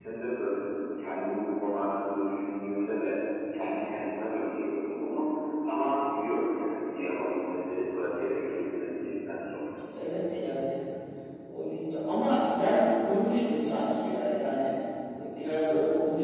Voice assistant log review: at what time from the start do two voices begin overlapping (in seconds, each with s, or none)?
none